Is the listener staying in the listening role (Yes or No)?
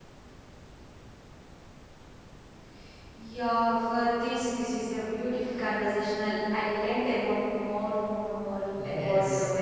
No